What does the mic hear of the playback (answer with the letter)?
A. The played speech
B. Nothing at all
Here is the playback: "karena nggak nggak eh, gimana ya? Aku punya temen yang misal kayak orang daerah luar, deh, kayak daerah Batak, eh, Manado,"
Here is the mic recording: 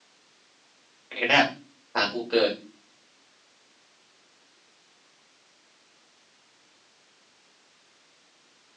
B